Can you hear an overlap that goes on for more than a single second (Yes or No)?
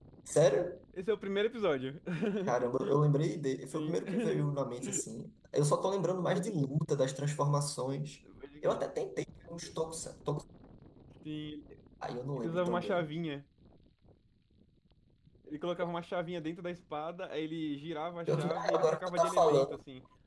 Yes